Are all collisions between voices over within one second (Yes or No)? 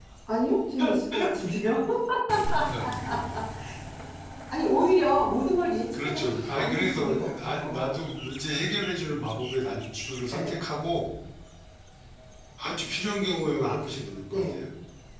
No